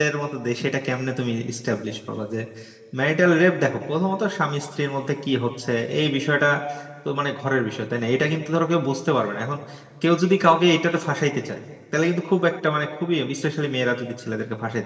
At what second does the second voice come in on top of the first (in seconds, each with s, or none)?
none